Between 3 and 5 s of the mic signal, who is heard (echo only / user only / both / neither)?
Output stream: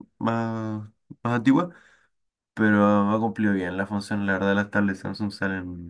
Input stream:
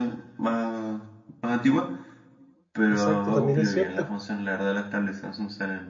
both